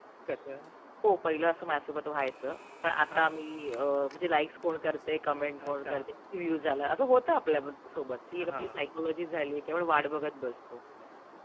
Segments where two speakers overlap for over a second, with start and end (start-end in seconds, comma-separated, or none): none